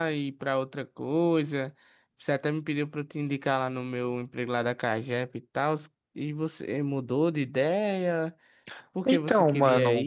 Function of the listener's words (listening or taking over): listening